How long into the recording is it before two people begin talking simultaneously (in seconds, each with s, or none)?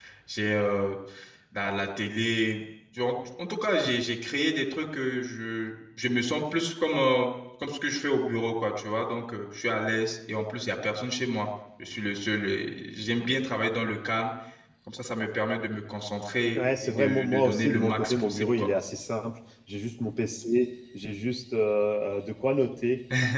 16.6 s